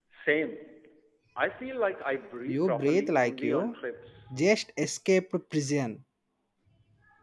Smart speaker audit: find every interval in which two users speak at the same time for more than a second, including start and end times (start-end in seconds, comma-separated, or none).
2.5-3.7